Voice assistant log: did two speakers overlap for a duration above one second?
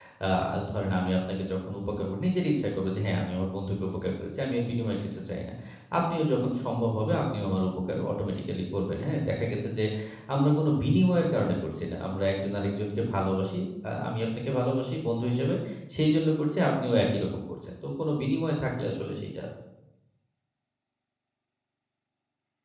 No

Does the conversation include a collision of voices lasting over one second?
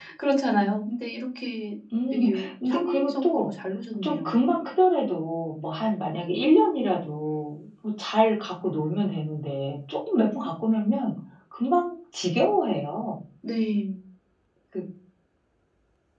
Yes, from 2.1 s

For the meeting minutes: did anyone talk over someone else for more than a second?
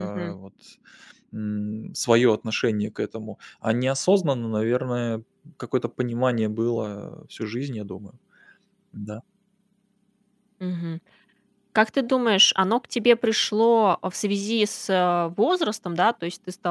No

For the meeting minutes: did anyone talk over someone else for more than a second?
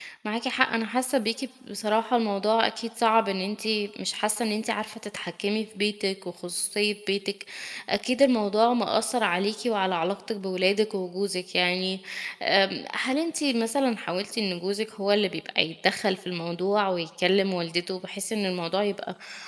No

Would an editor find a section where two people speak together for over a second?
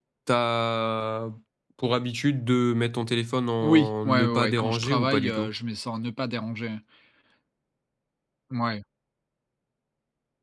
Yes, from 3.6 s

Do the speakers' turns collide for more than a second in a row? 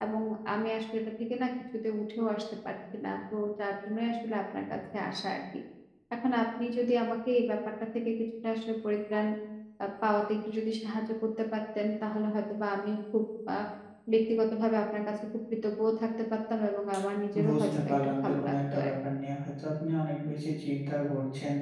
Yes, from 17.3 s

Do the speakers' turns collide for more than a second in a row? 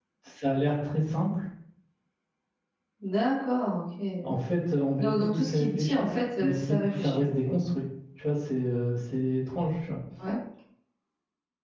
Yes, from 5.0 s

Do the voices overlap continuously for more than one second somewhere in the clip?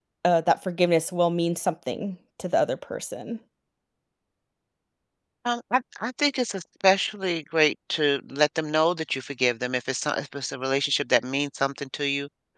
No

